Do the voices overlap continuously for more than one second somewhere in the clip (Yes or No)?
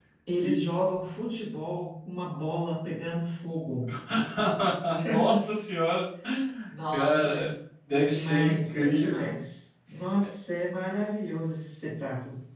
Yes